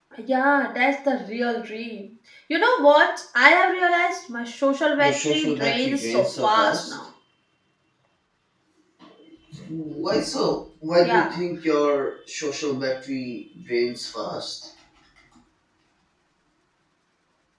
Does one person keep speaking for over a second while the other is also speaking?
Yes, from 5.0 s

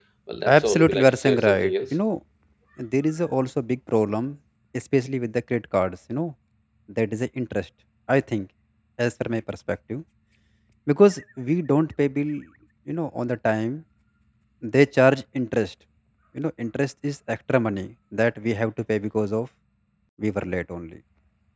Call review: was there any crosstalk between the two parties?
Yes, from 0.6 s

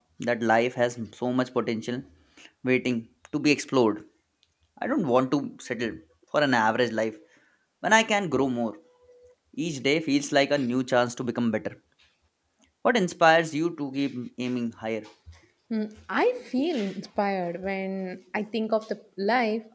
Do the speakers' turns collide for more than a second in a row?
No

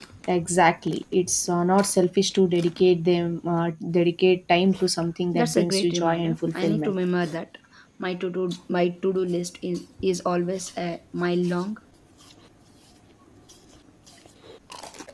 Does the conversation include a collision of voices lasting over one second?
Yes, from 5.3 s

